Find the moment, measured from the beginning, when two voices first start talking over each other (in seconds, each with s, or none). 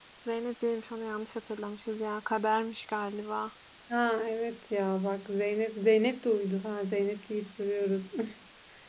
none